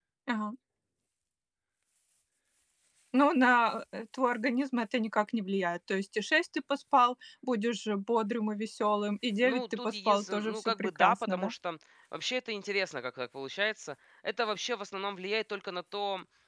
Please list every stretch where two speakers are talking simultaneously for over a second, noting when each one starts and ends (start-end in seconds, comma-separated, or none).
9.4-11.5